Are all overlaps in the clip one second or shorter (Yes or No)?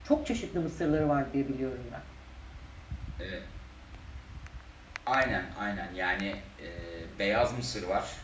Yes